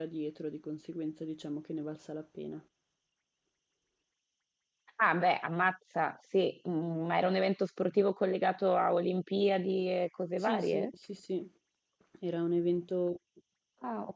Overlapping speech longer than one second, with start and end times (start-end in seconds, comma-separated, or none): none